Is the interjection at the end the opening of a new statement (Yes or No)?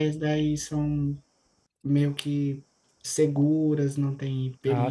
Yes